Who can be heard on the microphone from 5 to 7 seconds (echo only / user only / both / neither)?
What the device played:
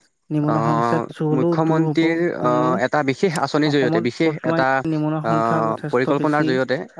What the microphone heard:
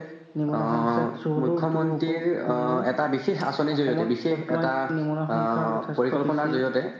echo only